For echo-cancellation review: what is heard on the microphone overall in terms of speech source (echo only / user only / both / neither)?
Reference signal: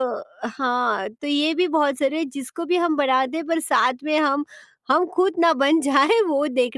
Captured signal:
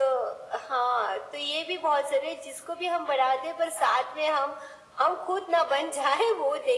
echo only